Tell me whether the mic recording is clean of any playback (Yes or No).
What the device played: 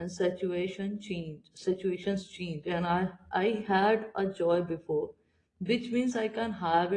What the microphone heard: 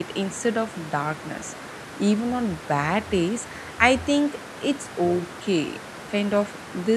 Yes